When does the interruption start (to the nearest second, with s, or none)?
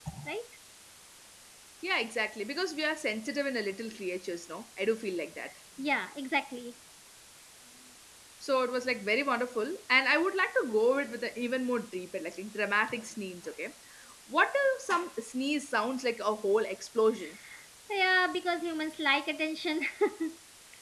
none